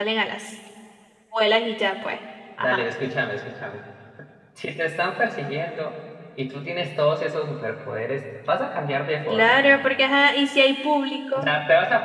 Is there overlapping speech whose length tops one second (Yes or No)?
No